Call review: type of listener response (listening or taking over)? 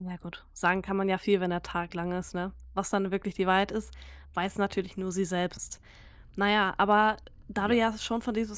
listening